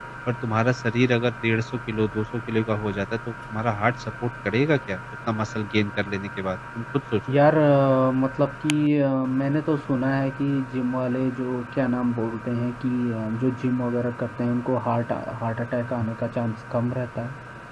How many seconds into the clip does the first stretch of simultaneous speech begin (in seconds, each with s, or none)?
none